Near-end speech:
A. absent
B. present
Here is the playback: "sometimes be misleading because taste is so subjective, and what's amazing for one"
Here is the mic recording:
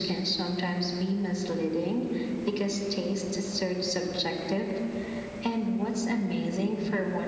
A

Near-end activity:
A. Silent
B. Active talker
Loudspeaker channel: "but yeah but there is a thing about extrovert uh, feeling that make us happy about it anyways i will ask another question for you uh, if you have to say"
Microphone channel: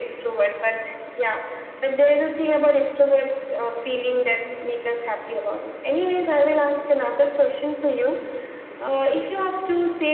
A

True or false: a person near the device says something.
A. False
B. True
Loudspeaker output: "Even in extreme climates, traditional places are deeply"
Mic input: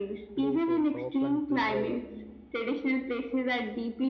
B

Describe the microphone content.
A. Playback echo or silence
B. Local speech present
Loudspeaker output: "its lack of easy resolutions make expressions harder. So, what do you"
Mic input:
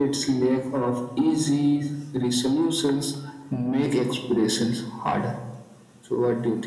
A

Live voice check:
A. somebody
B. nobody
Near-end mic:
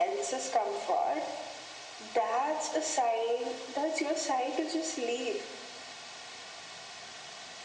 B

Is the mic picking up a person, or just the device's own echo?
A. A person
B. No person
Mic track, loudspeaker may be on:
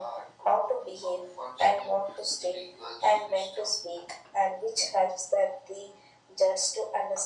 B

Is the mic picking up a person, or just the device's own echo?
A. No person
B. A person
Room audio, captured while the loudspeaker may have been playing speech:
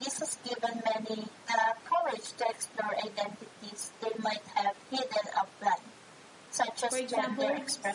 B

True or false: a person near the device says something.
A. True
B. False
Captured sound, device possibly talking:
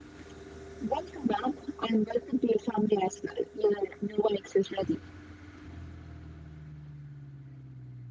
B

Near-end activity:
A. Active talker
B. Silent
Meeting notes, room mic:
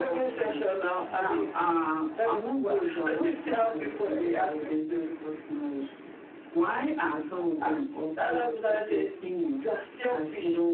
B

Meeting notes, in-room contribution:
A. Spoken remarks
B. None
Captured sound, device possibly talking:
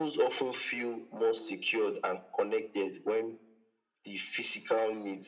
B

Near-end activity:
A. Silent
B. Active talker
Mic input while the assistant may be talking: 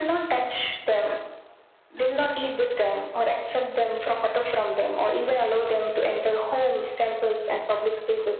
A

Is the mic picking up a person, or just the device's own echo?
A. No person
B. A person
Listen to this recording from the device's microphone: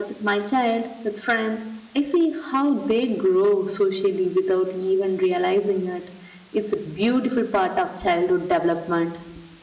B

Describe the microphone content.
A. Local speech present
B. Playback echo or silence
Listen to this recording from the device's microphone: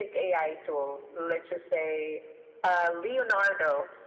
B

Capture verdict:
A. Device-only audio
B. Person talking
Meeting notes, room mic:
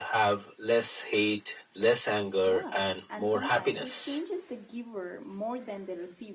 B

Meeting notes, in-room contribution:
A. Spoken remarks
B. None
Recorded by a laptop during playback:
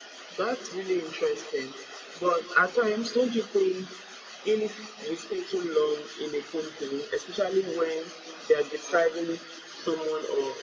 B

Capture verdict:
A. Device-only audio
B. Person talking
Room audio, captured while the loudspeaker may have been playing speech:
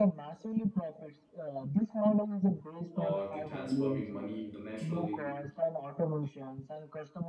B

